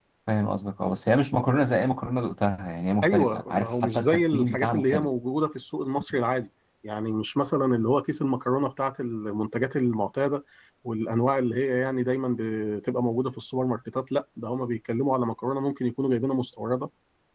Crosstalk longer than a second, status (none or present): present